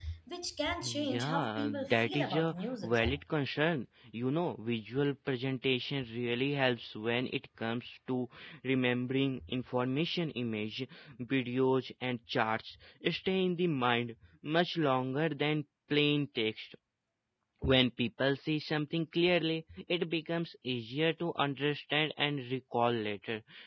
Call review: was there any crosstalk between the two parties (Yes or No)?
Yes